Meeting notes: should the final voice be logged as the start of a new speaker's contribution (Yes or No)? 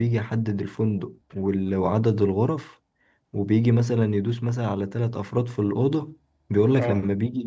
No